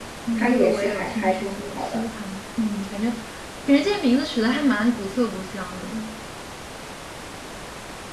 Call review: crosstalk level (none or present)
present